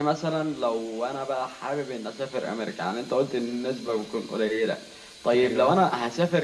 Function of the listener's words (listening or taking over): listening